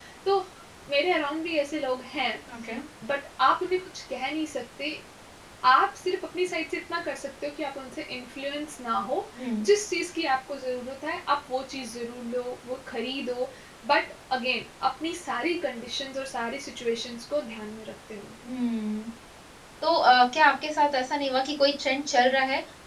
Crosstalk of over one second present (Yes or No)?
No